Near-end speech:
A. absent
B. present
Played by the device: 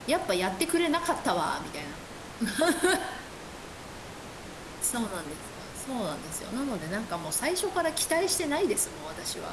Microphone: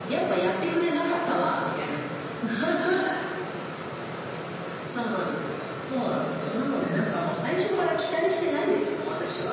A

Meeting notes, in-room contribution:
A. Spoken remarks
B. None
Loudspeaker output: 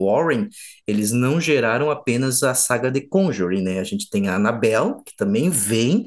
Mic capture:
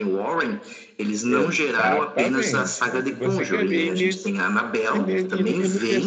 A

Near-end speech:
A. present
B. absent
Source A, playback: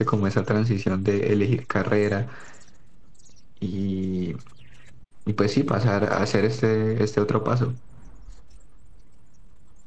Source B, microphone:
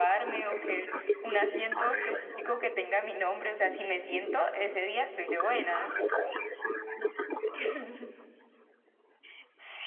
A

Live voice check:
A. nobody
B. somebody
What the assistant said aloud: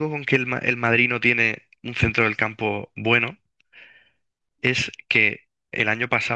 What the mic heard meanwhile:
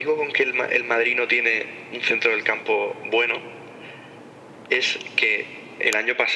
A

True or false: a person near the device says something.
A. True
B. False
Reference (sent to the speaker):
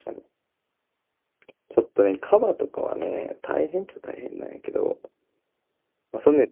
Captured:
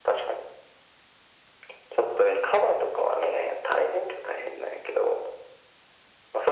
B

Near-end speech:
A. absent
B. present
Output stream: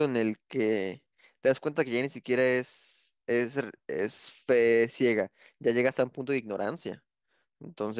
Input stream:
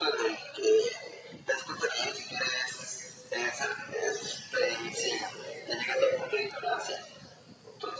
A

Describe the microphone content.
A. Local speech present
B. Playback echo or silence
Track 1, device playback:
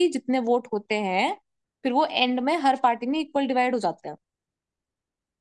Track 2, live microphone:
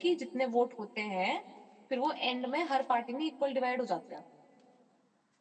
B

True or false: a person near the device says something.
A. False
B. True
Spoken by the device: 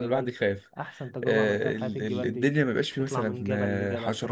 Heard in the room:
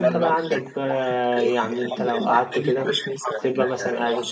B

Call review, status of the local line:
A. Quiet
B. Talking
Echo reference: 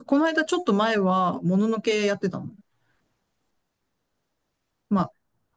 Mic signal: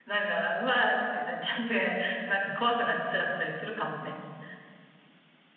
B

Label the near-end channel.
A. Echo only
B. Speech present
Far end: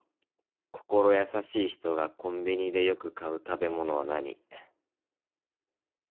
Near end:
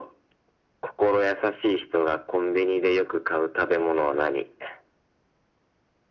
A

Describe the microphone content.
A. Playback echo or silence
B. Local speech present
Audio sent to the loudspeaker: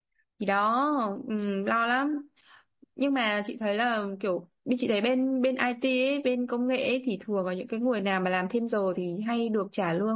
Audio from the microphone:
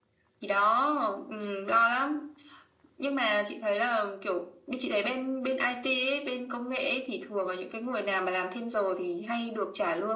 A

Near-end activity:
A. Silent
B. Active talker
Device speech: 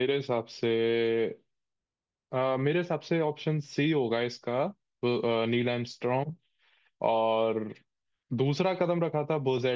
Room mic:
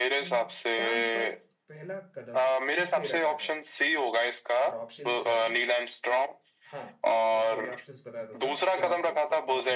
B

